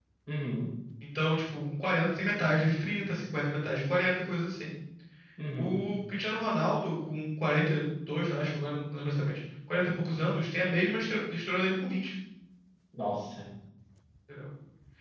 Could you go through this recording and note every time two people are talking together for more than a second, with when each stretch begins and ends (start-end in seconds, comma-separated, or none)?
none